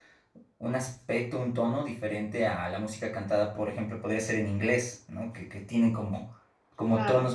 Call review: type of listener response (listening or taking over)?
listening